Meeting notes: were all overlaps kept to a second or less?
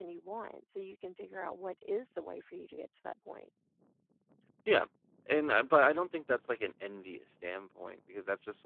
Yes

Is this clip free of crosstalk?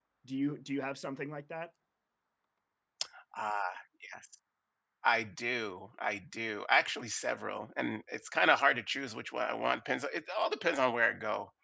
Yes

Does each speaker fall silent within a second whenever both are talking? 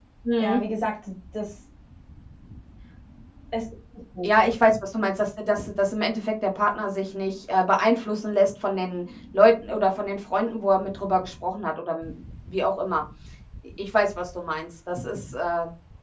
Yes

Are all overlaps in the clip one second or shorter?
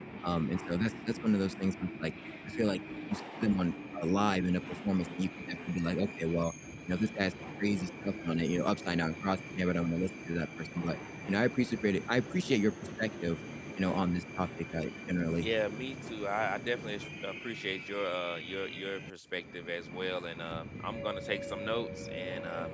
Yes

